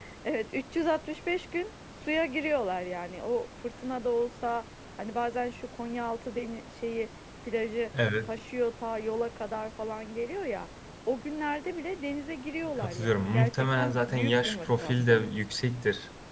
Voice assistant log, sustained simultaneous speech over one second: present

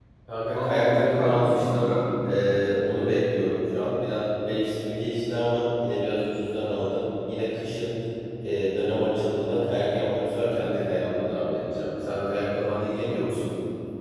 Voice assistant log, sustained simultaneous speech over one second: present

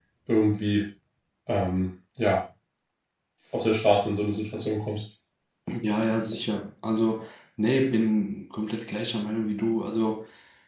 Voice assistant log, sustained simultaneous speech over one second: none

